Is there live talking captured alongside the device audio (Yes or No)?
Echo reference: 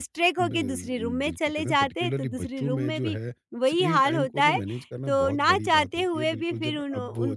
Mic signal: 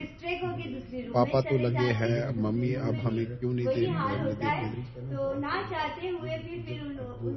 Yes